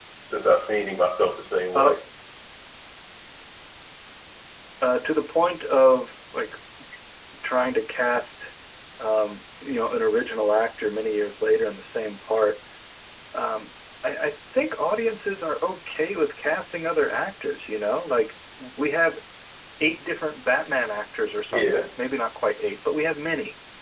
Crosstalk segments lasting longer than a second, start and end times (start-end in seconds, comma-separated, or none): none